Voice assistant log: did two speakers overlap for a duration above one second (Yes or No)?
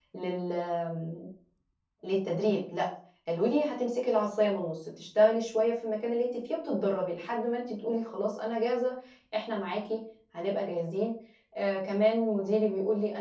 No